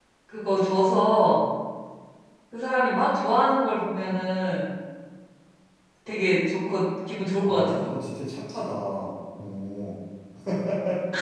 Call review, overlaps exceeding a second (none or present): none